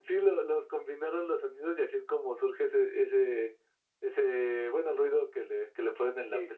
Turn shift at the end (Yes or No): Yes